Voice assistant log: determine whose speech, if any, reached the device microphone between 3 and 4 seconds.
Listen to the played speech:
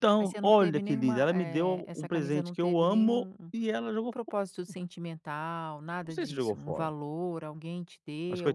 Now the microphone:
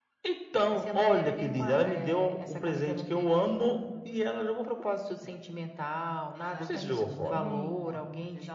echo only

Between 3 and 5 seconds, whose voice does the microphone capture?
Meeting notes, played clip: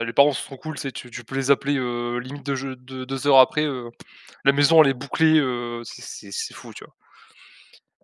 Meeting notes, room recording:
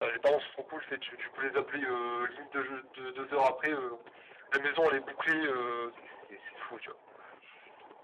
echo only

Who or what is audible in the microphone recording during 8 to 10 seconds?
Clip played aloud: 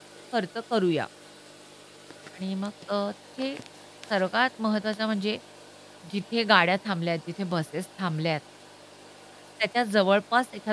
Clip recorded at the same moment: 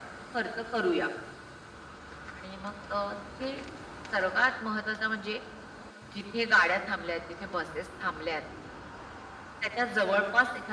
echo only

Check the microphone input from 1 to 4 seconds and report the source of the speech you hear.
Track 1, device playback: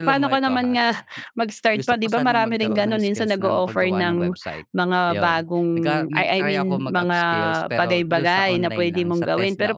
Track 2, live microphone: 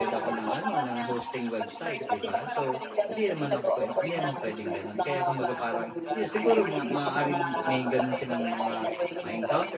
both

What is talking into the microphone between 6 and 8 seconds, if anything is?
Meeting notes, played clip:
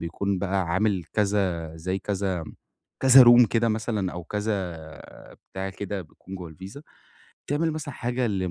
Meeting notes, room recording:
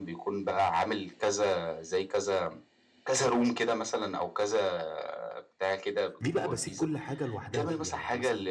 both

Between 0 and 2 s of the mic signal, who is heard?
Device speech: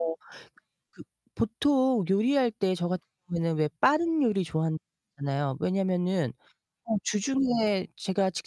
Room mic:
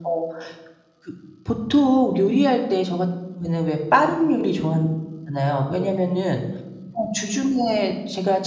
echo only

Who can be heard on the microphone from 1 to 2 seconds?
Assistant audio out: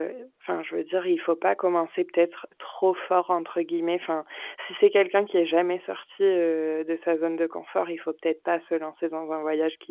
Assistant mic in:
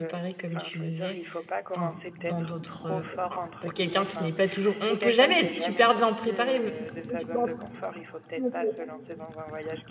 both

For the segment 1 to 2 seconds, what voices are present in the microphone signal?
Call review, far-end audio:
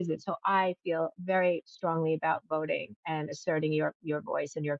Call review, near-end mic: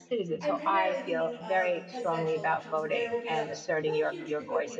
both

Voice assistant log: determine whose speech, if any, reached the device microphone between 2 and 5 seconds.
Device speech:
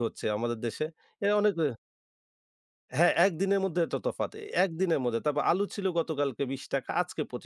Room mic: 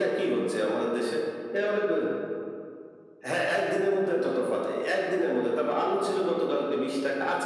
echo only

